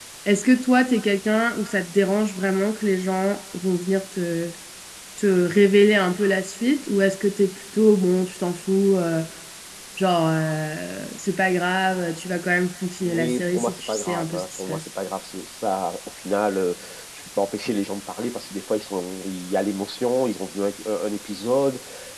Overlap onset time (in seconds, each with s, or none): 13.0 s